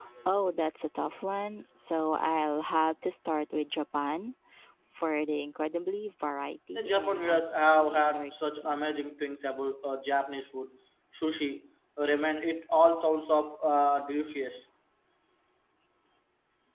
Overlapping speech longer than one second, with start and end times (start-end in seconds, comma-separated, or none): 6.8-8.9